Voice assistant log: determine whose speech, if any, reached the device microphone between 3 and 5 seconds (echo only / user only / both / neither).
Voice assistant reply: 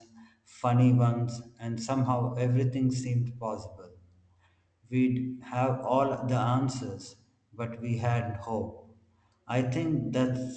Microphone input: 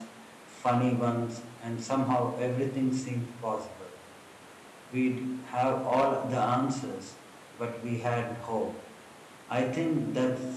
echo only